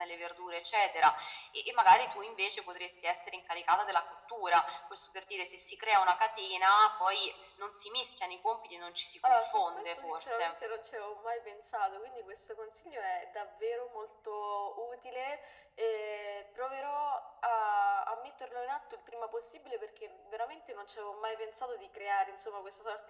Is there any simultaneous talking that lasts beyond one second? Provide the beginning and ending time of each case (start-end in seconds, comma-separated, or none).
9.3-10.6